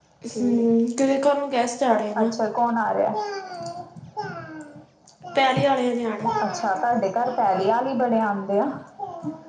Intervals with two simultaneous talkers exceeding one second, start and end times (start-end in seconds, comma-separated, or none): none